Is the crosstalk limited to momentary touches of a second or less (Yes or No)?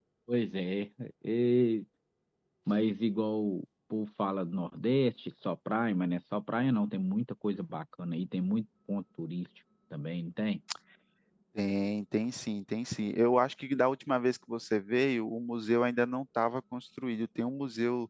Yes